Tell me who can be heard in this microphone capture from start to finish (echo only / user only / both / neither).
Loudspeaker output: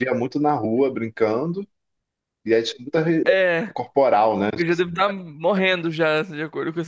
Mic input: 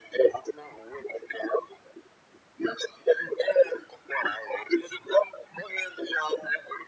echo only